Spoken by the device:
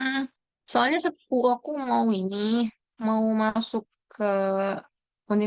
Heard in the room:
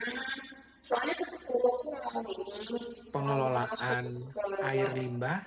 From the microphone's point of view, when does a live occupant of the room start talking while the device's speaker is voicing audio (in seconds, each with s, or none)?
3.1 s